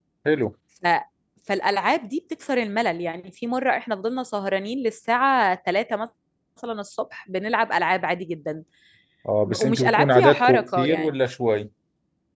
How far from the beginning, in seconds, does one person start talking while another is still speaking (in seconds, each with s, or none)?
9.5 s